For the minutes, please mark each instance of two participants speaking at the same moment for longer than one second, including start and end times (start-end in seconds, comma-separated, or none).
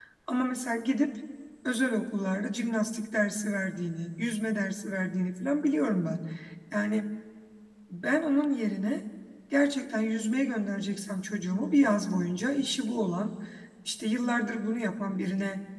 none